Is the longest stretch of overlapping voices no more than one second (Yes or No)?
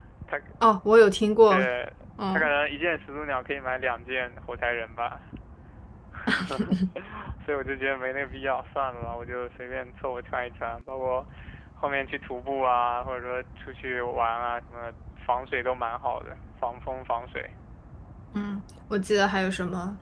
Yes